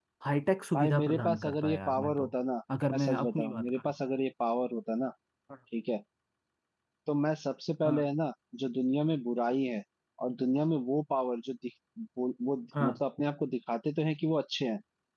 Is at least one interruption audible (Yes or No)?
Yes